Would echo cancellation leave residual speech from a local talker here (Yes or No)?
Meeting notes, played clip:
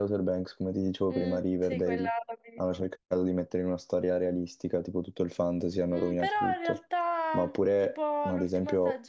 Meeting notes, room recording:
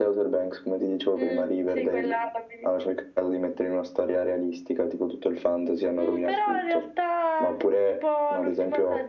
No